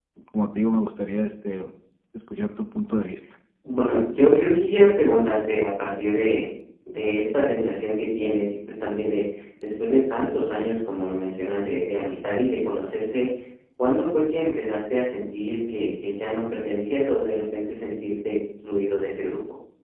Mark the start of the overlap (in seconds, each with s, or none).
none